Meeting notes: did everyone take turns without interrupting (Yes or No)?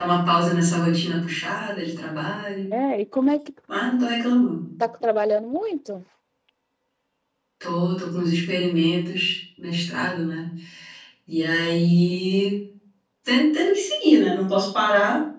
Yes